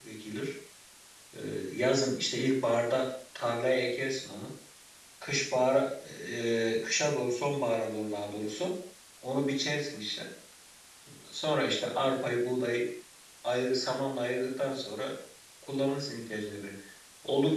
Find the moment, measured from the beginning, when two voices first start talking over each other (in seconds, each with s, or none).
none